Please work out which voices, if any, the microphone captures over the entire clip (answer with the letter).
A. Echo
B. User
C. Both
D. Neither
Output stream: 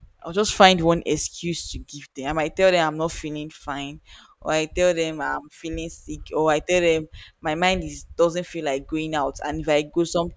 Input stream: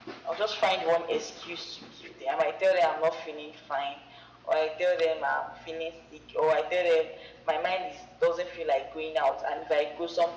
A